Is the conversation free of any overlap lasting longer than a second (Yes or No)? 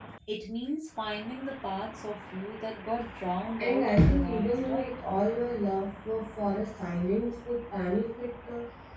No